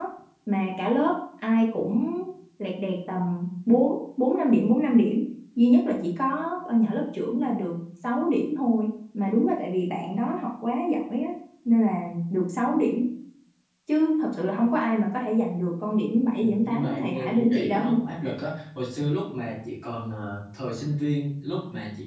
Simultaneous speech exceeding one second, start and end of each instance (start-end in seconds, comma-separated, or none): 16.4-17.8